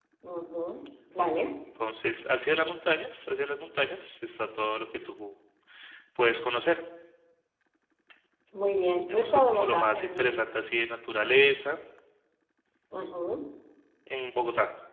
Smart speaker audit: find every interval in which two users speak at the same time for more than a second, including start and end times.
9.1-10.4

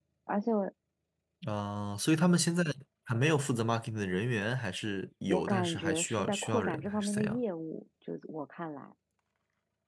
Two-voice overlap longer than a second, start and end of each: 5.3-7.4

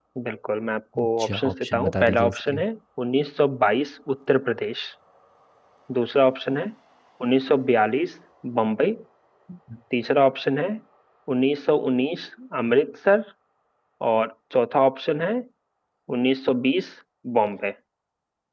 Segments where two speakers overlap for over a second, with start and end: 1.0-2.6

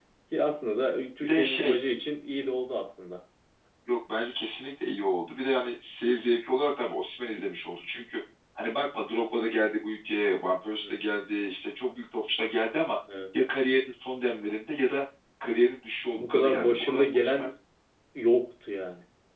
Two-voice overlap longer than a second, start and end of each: 16.1-17.5

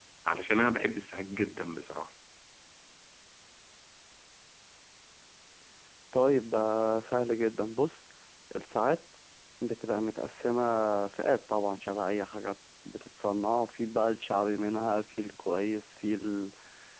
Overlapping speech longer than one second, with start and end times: none

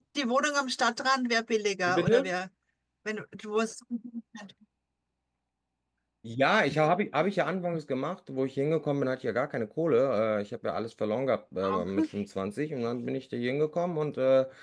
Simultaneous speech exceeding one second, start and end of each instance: none

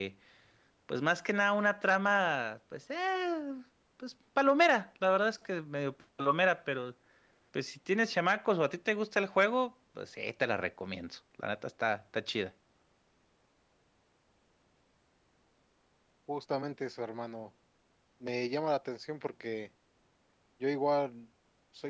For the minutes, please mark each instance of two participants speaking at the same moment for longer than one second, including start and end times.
none

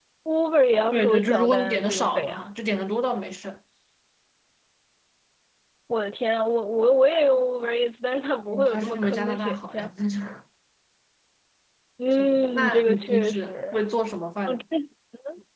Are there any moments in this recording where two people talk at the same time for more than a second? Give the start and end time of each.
0.9-2.5, 8.5-9.9, 12.1-13.8

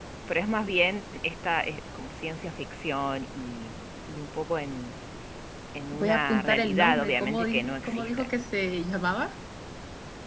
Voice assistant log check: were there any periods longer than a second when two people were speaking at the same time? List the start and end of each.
5.9-8.3

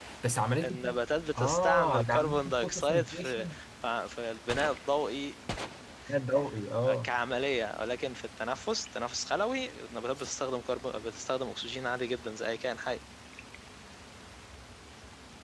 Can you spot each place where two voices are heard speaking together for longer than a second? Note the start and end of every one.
1.4-3.5

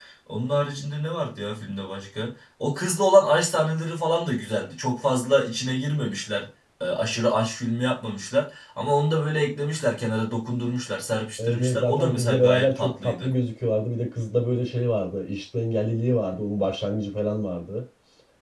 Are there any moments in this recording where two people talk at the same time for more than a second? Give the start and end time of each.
11.5-13.3

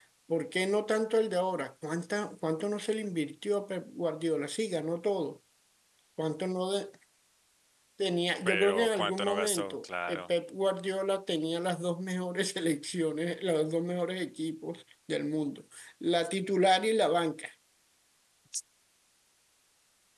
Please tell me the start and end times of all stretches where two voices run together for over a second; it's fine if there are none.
8.4-10.2

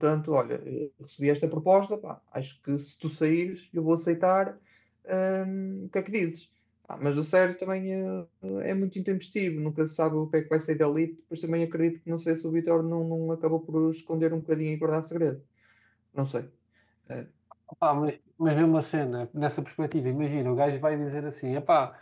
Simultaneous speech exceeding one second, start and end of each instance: none

